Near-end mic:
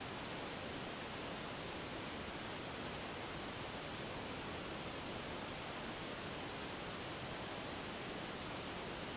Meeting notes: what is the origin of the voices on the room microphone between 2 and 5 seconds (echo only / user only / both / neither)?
neither